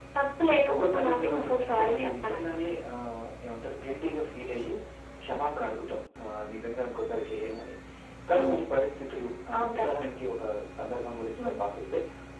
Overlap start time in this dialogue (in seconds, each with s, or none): 0.7 s